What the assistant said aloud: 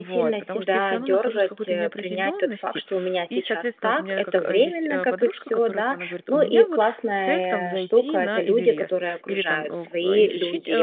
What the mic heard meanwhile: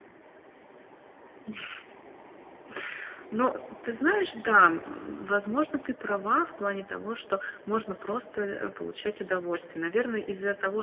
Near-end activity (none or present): present